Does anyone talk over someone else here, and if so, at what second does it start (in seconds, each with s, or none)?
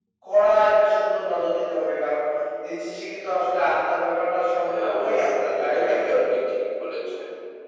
4.6 s